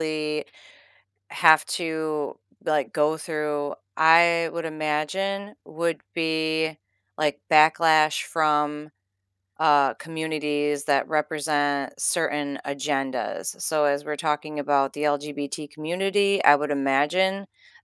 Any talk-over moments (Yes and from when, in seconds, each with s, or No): No